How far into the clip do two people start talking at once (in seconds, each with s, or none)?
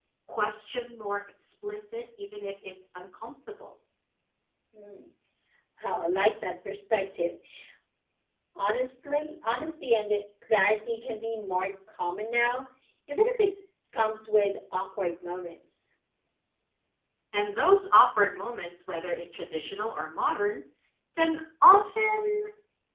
none